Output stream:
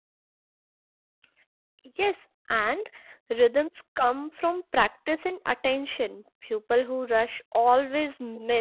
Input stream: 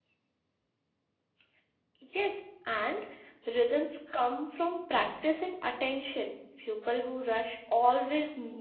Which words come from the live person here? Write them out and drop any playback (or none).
none